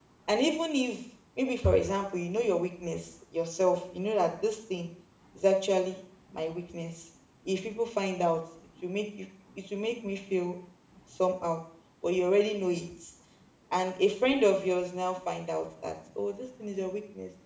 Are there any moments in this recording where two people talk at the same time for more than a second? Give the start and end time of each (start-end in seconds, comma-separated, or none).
none